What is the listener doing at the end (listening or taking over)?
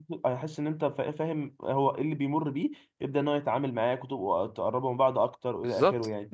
taking over